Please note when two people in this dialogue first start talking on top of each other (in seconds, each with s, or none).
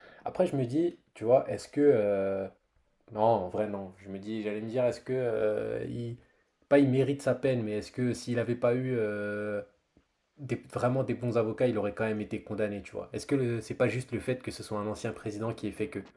none